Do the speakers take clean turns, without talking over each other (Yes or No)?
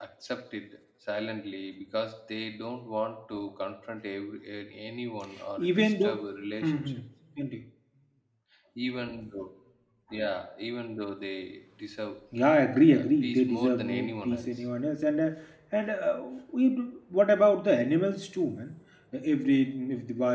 No